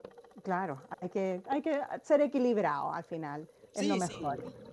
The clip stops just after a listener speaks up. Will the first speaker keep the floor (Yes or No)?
No